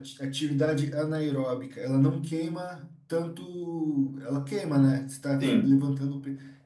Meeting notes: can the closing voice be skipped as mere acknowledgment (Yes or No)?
Yes